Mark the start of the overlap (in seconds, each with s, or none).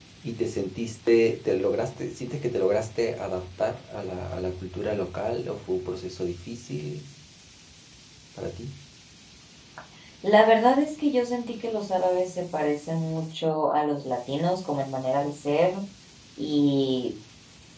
none